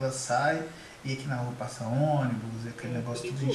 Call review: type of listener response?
listening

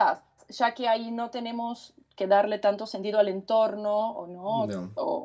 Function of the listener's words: listening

